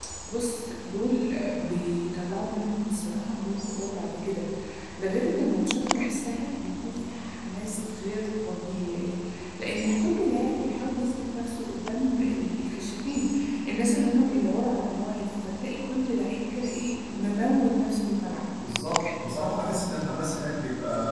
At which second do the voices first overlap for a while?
none

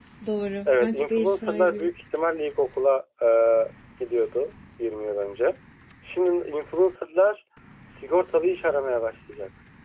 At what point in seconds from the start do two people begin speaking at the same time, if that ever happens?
1 s

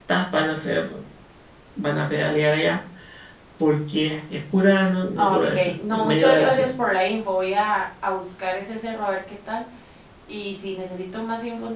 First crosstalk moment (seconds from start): 5 s

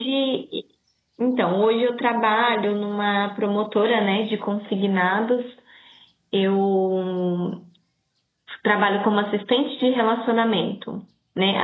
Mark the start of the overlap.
none

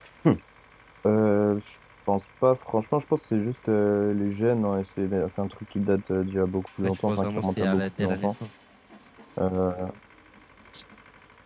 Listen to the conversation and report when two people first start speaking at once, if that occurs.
7 s

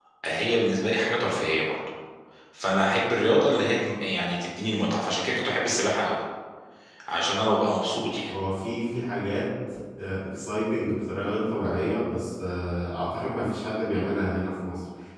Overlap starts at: none

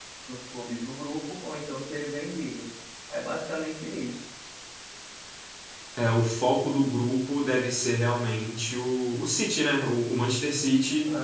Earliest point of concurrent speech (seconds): none

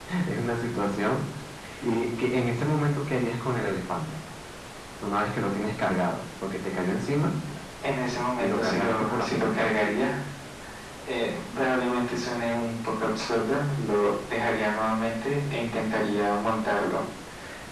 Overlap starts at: 8 s

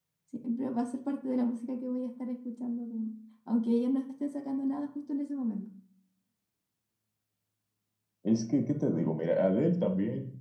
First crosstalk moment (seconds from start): none

